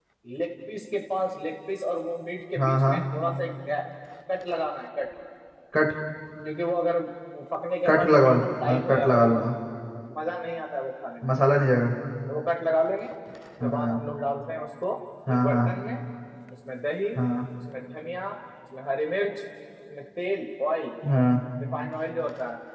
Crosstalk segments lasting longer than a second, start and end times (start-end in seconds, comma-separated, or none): 7.8-9.4